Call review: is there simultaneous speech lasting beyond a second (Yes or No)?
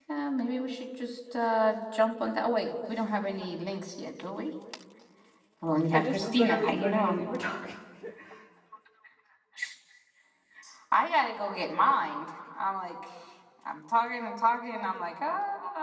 Yes